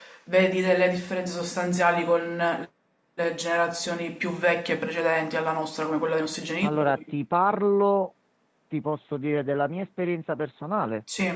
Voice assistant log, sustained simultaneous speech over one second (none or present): none